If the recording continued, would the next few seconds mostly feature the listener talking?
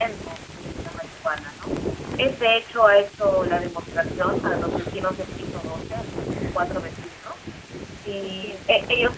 No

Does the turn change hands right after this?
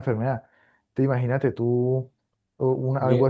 No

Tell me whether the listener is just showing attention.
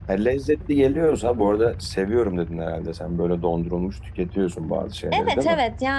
No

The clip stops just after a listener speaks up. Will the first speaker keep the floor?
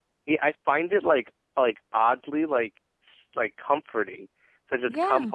Yes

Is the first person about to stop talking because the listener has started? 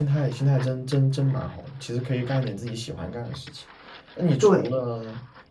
No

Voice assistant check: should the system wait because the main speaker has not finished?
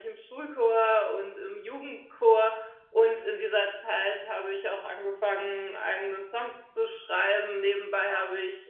Yes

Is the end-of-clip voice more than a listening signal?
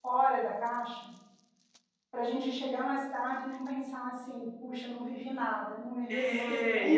Yes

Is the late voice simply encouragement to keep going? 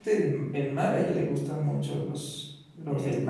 Yes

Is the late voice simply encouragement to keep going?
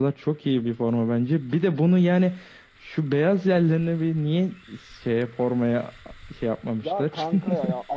No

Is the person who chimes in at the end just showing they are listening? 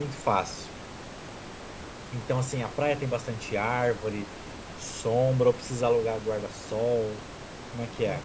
No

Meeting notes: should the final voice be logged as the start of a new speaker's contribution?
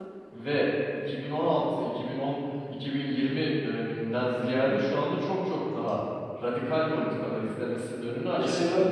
Yes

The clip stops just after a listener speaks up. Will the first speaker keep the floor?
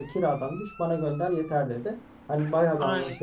Yes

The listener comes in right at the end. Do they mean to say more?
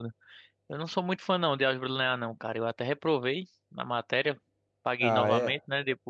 Yes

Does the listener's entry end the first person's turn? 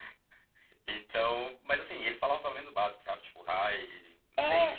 Yes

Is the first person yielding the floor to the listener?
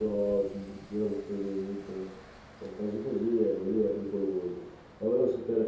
Yes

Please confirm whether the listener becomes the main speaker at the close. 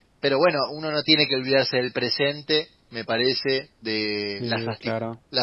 No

